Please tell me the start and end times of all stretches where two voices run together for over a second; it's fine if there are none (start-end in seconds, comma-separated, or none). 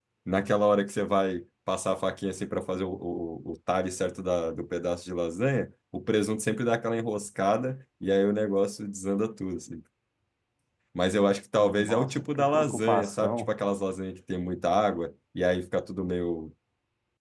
11.5-13.5